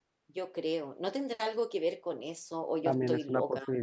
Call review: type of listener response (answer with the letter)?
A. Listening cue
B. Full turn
B